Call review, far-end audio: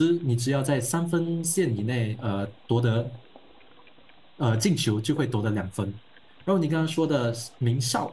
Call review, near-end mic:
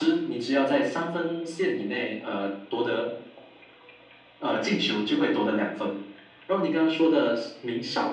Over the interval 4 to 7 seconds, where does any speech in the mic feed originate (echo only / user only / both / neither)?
echo only